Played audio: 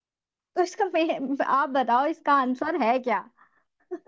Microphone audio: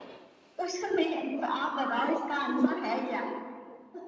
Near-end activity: none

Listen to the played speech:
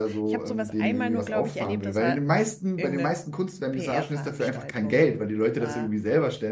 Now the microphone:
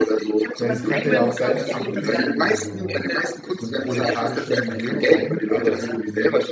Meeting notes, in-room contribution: present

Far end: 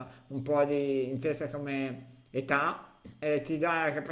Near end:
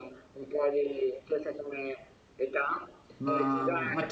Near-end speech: present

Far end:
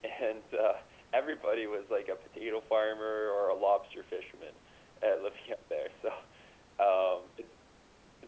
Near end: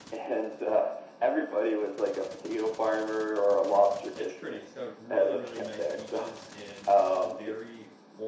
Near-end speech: present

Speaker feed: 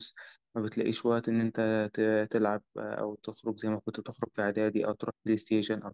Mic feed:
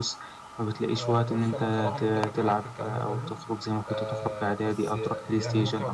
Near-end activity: present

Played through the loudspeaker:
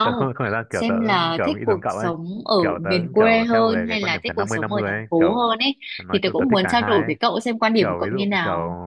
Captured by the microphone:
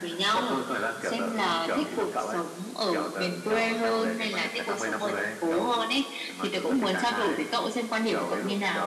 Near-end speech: none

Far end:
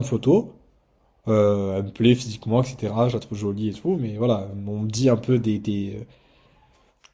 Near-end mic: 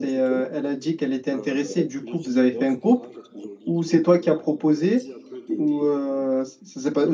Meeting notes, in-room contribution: present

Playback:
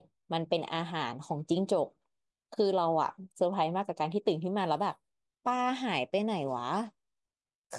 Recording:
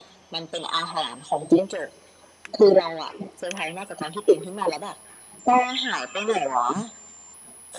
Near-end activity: none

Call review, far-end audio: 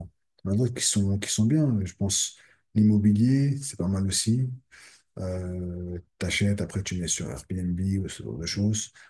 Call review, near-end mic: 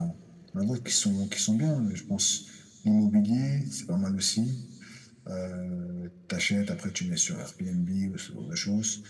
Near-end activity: none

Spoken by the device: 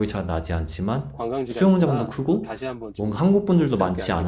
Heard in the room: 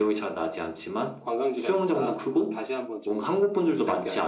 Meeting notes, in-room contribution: none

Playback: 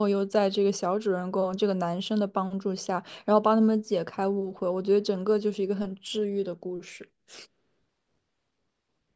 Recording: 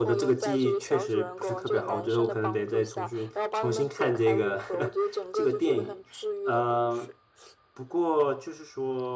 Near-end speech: present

